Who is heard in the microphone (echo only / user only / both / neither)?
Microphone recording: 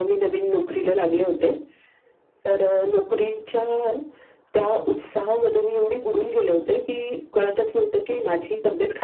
echo only